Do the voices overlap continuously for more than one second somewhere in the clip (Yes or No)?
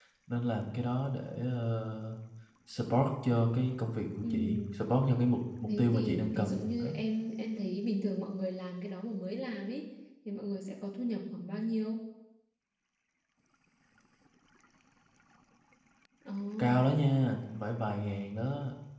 Yes